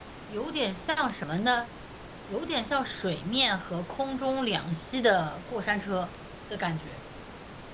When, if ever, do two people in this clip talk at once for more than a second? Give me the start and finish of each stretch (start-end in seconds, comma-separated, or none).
none